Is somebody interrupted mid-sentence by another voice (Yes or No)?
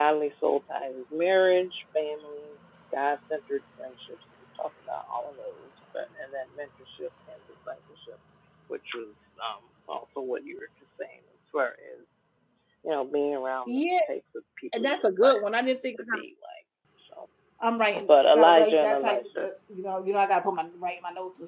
Yes